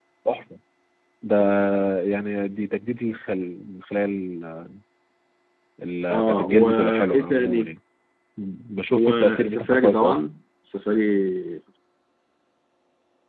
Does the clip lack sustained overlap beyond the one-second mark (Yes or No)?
No